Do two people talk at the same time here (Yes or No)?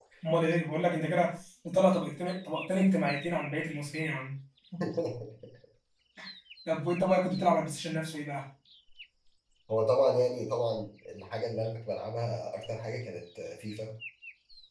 No